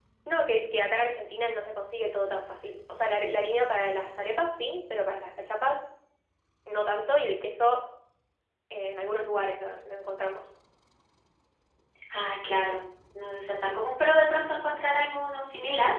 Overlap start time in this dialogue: none

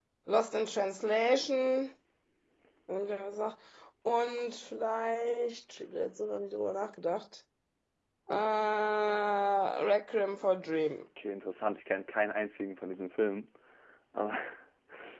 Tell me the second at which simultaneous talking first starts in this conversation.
none

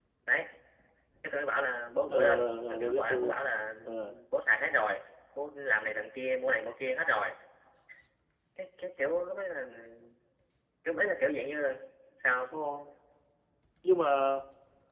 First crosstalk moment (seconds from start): 2.1 s

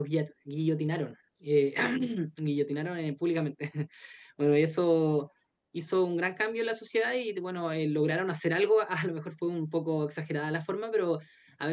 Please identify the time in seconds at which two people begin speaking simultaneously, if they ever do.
none

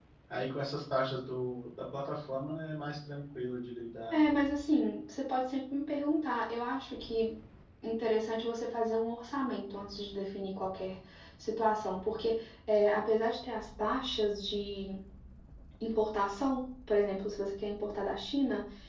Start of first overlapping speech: none

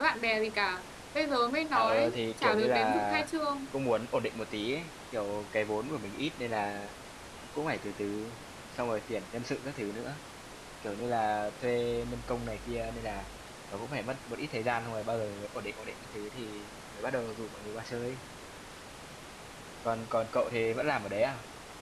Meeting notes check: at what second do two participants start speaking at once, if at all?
1.7 s

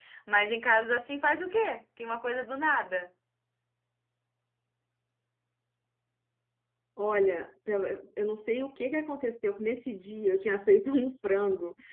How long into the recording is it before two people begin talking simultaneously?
none

